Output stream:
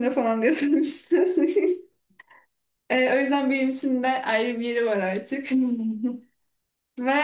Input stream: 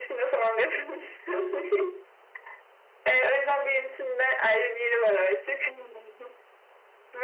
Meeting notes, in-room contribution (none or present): none